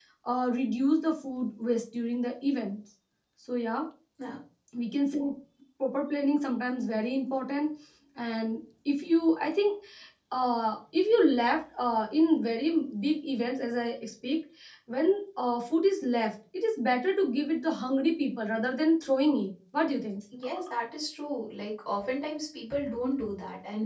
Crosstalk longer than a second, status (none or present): none